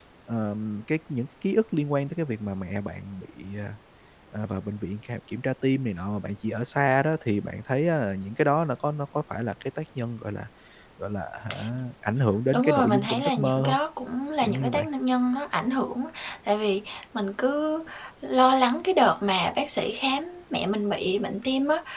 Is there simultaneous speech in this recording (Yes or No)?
Yes